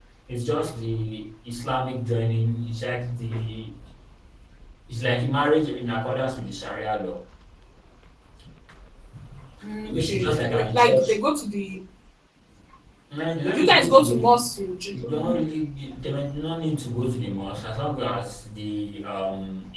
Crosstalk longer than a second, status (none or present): present